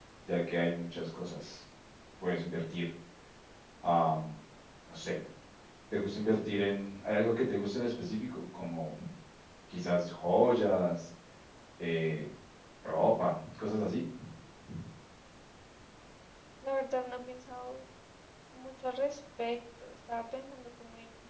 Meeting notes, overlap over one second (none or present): none